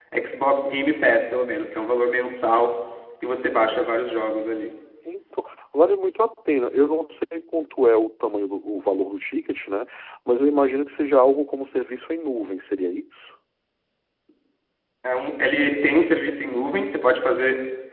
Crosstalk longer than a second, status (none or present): none